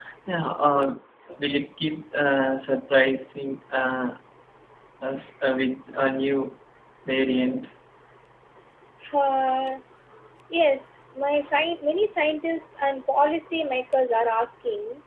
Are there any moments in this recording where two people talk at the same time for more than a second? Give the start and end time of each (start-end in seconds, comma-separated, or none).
none